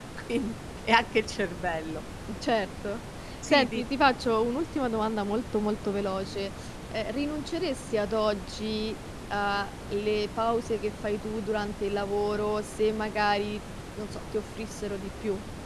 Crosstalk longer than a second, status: none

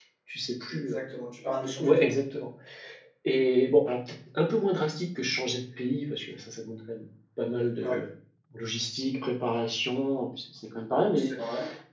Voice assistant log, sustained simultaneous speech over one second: none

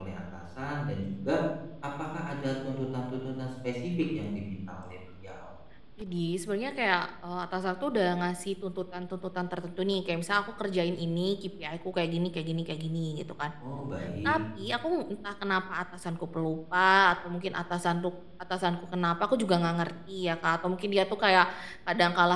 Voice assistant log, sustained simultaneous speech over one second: none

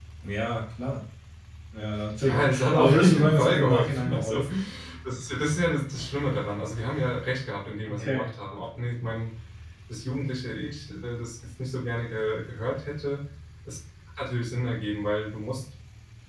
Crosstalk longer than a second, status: present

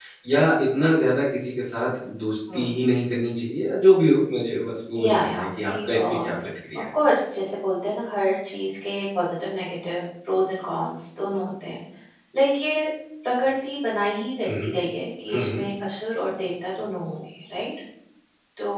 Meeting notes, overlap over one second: present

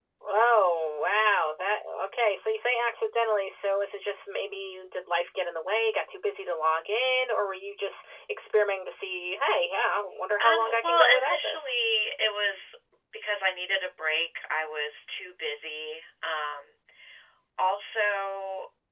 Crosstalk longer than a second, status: present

